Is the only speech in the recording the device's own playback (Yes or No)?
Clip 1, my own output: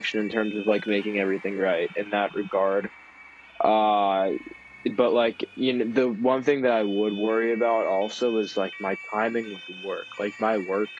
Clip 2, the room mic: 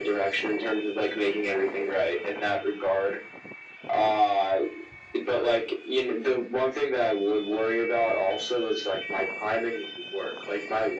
Yes